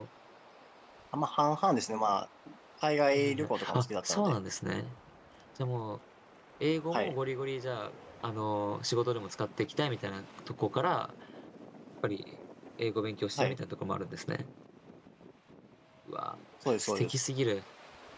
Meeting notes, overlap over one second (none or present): present